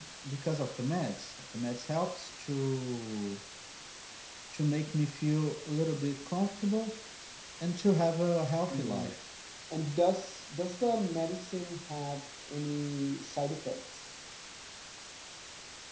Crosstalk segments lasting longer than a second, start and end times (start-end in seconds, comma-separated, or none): none